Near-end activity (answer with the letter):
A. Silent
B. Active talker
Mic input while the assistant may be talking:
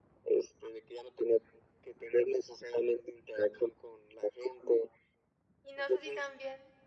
B